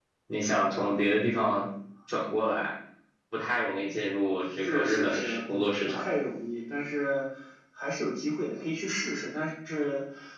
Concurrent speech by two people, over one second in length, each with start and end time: 4.6-6.0

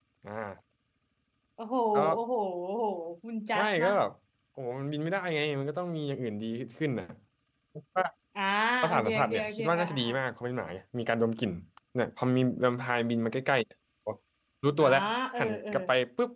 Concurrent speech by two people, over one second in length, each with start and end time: 8.8-10.1

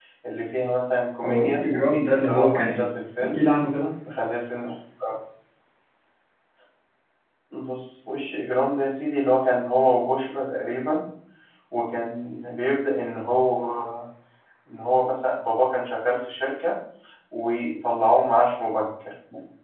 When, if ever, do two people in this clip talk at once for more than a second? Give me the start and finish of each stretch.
1.2-3.4

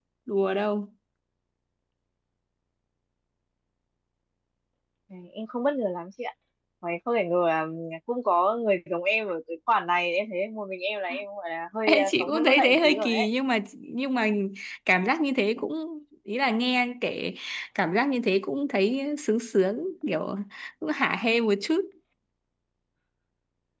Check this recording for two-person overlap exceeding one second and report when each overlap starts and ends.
11.8-13.3

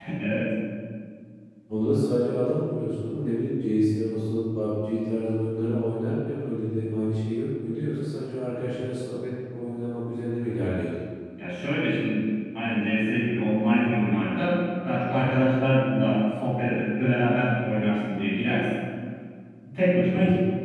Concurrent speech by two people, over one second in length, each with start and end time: none

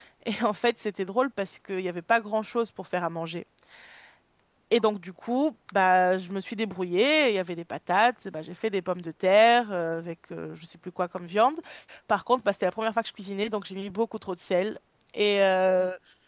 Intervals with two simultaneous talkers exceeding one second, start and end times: none

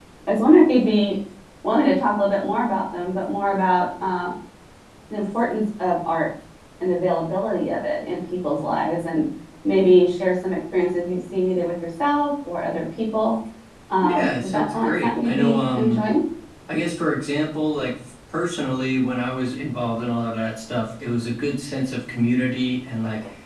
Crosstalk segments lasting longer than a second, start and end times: 14.0-16.0

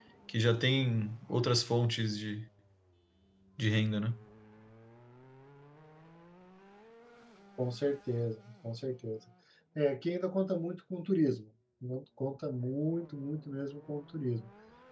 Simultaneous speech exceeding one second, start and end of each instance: none

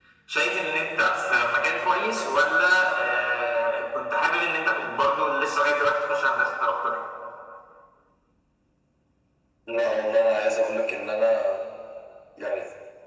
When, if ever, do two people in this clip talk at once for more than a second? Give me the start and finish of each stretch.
none

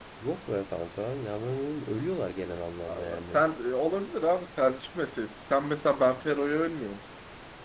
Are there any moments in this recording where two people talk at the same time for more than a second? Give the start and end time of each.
none

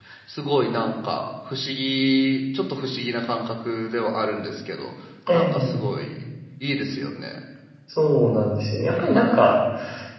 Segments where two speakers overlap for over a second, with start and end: none

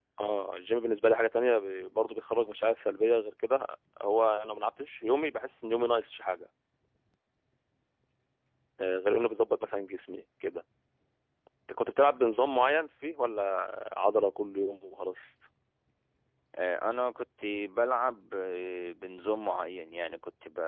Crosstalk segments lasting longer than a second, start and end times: none

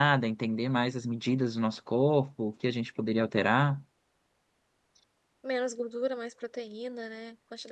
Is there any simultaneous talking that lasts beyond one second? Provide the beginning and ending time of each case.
none

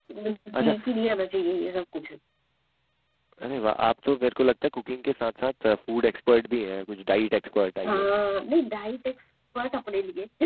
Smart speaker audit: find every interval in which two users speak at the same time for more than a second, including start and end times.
none

